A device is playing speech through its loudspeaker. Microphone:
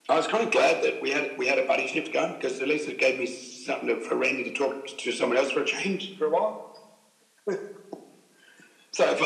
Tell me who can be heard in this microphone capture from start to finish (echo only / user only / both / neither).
echo only